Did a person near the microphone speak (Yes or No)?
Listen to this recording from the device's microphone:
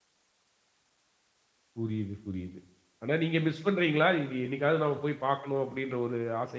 Yes